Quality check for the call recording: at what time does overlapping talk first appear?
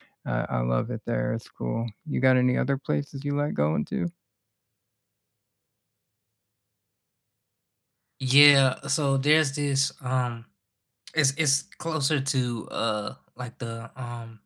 none

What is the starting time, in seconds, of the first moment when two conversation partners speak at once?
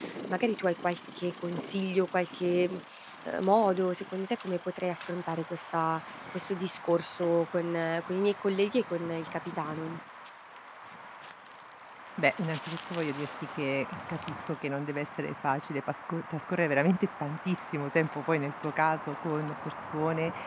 none

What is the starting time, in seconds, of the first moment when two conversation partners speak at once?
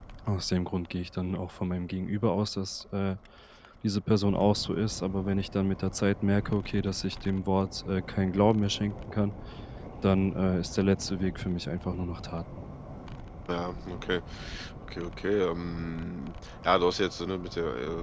none

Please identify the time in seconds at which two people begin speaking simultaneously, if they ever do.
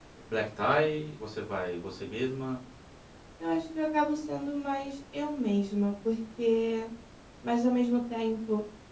none

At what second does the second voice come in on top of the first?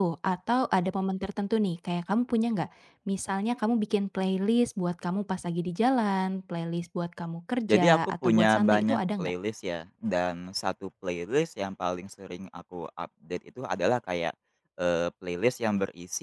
7.7 s

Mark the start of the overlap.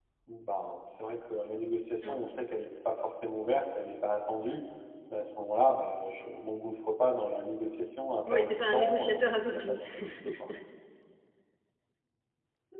8.3 s

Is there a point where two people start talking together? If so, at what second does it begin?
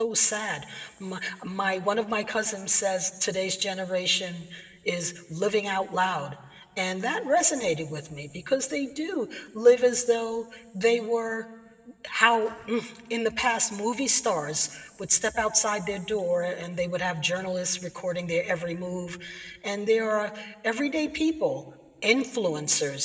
none

